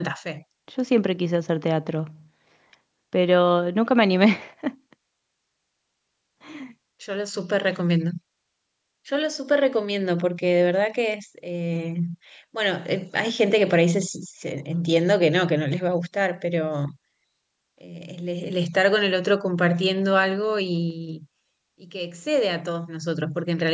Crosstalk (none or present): none